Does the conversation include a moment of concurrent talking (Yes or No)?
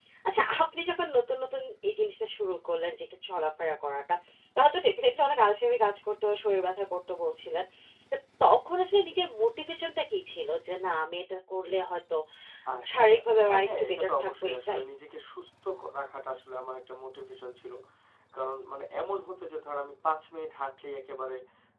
Yes